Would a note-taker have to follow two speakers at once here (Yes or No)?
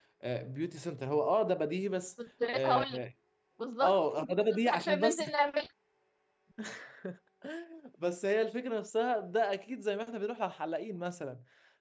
Yes